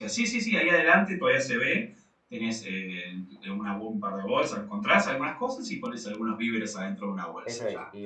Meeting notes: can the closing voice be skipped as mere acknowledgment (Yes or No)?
No